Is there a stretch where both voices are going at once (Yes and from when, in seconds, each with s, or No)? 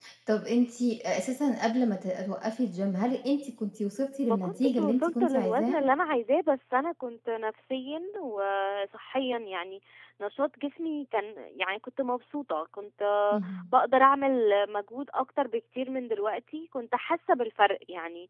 Yes, from 4.3 s